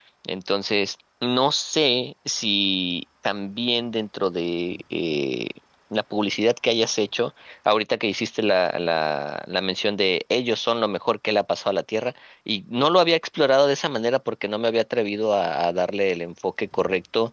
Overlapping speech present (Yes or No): No